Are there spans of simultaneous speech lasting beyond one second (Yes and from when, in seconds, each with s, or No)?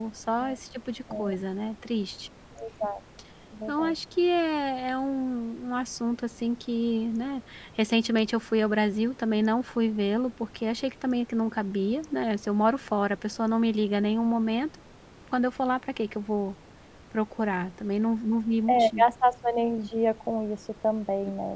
No